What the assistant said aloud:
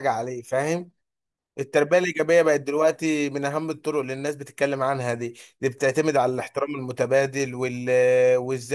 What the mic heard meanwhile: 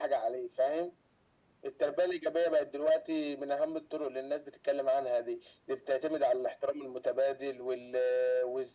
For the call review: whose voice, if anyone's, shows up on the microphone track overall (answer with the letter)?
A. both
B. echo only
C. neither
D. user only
B